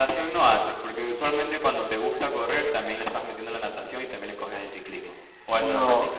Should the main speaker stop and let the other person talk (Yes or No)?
Yes